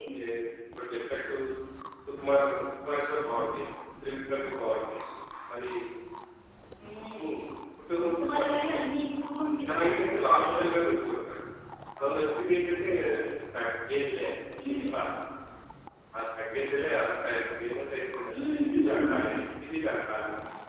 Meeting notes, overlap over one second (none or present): present